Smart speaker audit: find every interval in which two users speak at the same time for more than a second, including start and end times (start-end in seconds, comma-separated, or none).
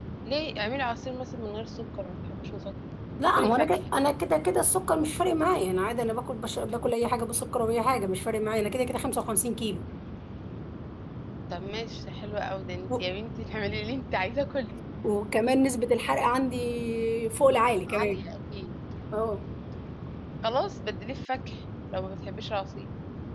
none